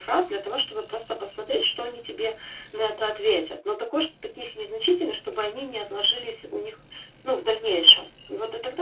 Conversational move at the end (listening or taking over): listening